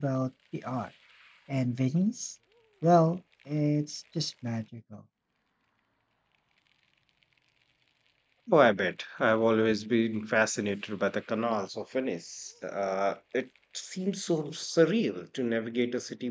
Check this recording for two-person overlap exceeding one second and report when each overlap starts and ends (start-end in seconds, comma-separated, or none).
none